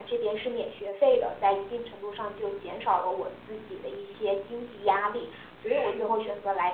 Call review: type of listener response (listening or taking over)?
listening